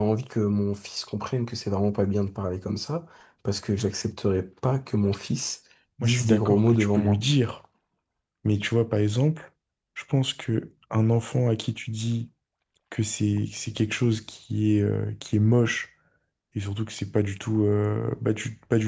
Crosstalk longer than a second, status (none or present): present